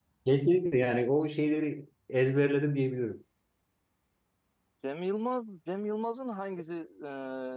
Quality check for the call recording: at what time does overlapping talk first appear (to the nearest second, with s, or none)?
none